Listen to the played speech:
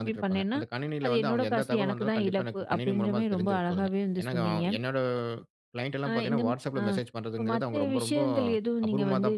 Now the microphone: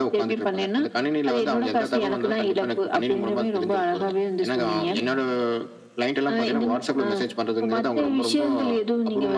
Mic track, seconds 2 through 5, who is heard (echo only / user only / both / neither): echo only